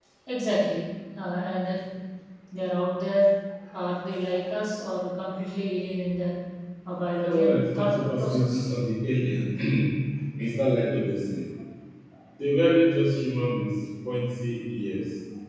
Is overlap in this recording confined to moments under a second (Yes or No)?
No